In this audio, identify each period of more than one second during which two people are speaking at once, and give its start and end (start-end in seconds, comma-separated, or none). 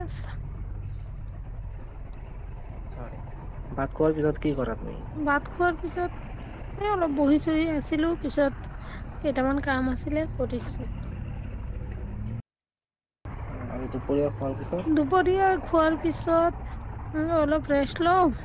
none